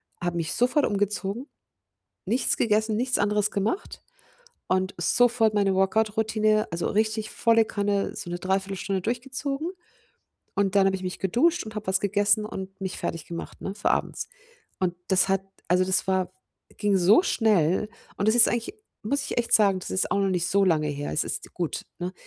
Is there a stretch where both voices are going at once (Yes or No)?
No